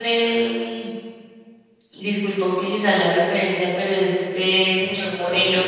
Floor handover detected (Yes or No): No